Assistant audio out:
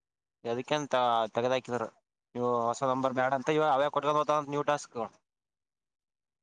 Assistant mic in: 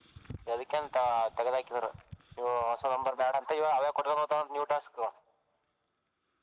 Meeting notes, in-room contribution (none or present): none